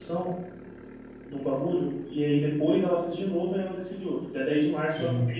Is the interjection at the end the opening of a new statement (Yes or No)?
No